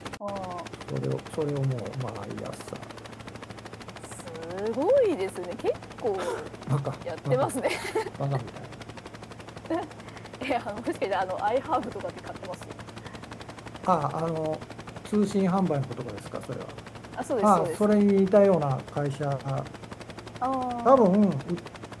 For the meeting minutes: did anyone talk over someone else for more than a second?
No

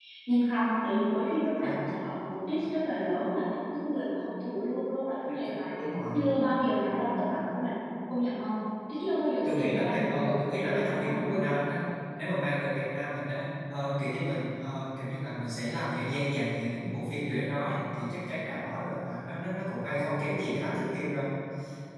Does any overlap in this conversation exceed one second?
Yes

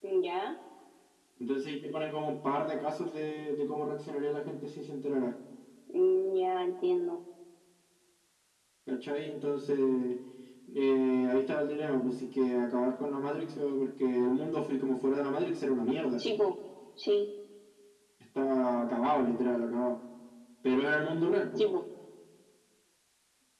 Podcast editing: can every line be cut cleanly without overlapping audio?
Yes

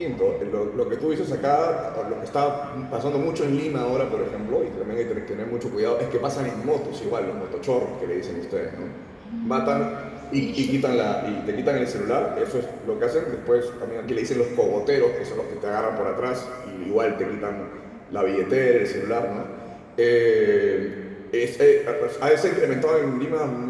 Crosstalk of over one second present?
No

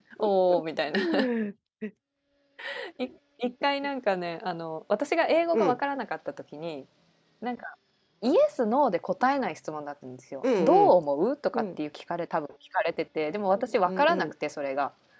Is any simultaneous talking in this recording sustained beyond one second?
No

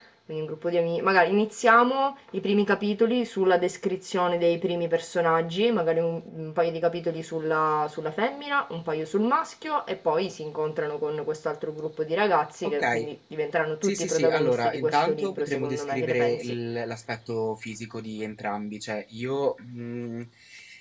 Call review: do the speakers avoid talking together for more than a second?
No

